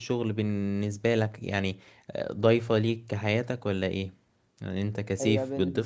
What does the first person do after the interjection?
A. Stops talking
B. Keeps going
A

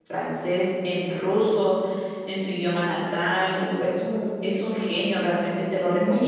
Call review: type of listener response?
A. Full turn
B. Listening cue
A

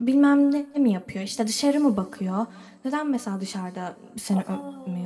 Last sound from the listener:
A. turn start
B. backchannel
B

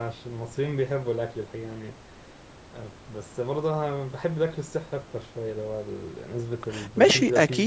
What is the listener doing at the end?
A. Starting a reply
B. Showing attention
A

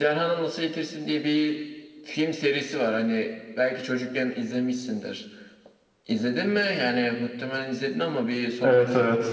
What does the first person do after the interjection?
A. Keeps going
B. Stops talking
B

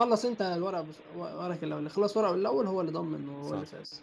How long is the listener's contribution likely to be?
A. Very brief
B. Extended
B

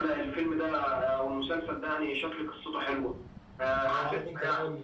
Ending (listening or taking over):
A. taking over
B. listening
A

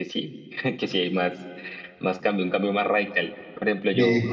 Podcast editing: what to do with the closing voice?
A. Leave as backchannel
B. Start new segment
A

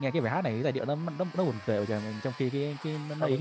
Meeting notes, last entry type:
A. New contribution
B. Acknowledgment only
A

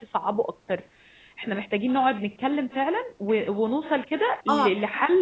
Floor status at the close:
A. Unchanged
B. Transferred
A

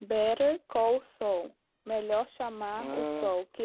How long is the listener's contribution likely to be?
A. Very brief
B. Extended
A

